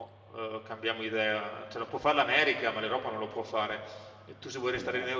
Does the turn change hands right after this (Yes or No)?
No